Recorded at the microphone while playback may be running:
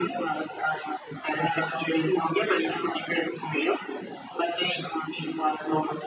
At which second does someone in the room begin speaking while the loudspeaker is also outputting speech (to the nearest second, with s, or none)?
none